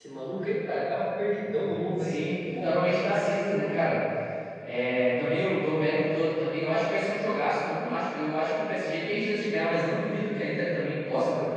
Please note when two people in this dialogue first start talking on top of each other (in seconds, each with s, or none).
1.8 s